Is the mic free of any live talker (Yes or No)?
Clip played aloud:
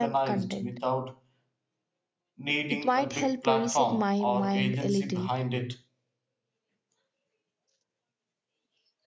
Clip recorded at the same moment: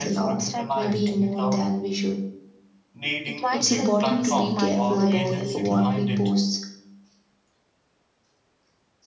No